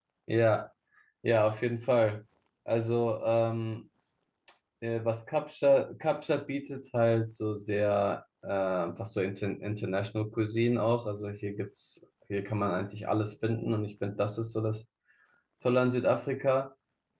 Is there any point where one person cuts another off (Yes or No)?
No